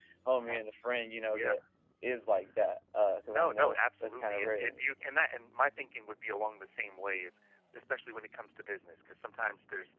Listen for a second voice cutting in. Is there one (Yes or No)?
Yes